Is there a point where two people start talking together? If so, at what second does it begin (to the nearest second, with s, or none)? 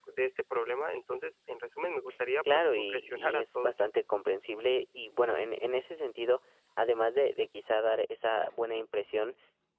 2 s